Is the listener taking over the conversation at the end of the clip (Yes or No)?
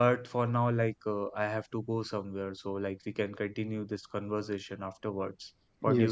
Yes